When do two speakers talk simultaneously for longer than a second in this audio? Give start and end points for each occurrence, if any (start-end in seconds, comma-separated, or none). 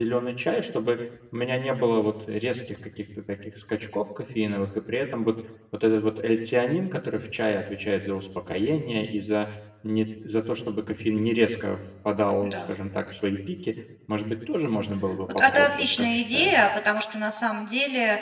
15.3-16.6